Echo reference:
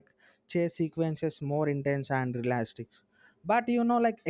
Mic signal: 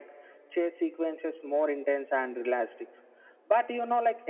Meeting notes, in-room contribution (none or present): none